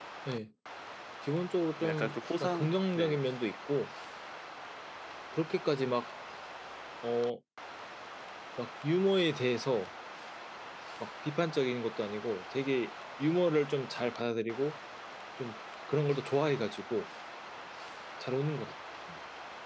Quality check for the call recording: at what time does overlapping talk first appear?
1.8 s

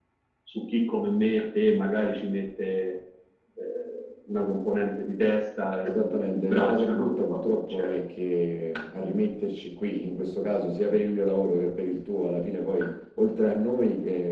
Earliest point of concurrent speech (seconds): 5.8 s

